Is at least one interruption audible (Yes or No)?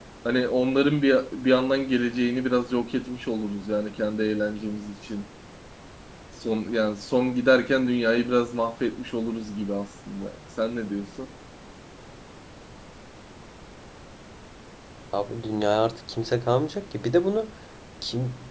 No